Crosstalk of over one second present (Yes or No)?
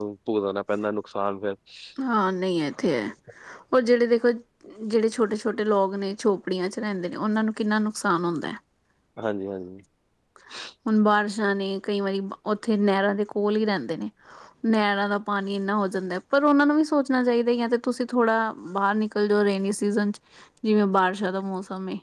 No